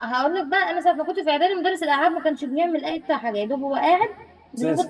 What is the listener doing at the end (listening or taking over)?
listening